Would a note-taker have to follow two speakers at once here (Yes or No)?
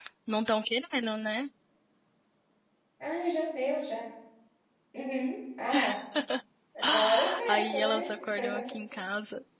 Yes